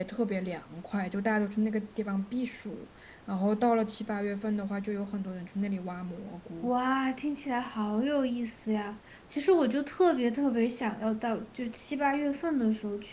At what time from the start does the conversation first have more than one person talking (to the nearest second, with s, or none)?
none